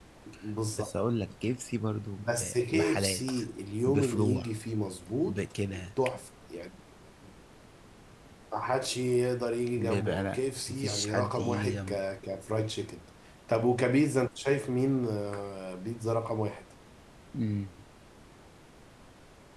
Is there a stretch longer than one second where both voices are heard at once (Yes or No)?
Yes